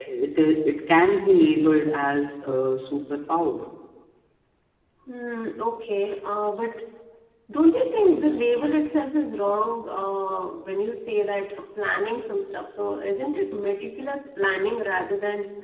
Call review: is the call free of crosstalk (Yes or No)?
Yes